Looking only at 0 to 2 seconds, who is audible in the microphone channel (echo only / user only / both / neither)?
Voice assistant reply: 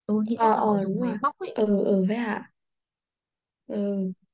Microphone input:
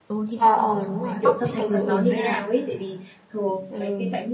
both